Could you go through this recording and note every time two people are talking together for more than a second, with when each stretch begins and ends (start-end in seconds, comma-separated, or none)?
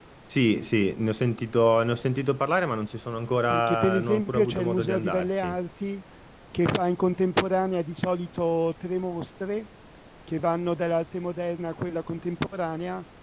3.5-5.6